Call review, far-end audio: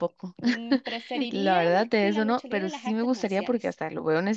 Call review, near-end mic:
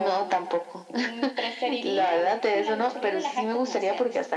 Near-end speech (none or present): none